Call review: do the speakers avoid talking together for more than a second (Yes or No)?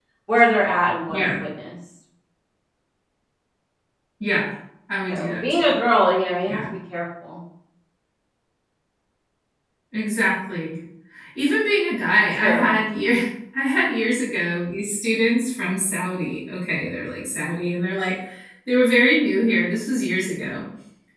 Yes